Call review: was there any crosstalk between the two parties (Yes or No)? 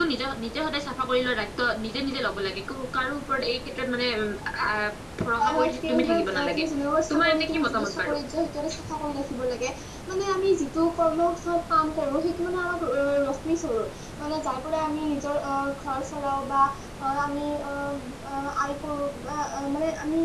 Yes